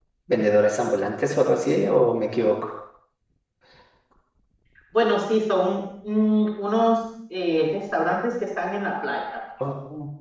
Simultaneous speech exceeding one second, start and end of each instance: none

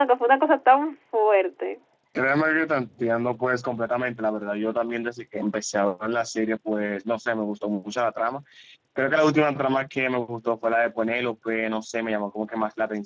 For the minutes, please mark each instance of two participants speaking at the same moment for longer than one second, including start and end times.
none

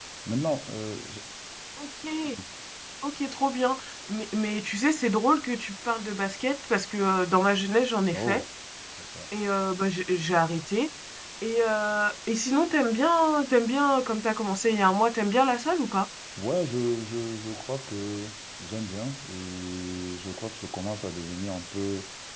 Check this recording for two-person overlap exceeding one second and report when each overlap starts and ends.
none

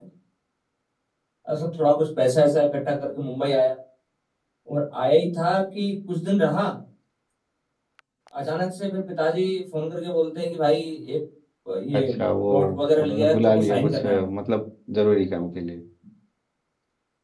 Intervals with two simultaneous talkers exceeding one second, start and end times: 13.1-14.3

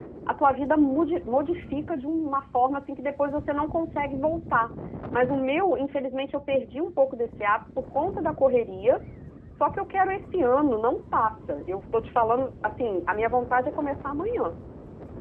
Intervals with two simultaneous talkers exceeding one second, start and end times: none

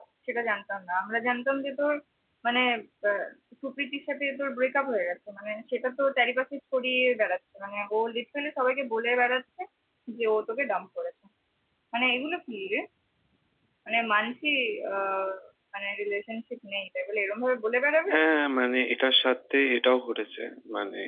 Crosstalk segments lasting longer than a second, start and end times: none

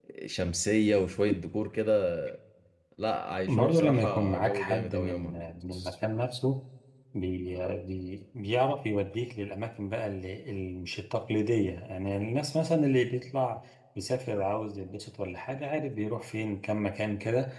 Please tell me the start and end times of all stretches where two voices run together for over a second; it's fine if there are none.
3.5-5.4

